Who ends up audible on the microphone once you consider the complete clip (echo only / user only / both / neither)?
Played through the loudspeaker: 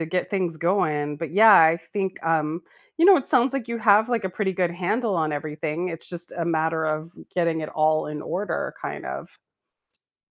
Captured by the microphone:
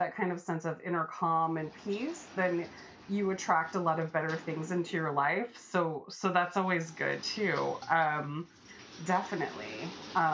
user only